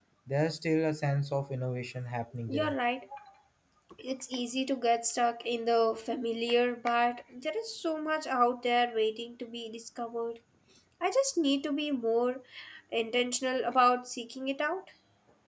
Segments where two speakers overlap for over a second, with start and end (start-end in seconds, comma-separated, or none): none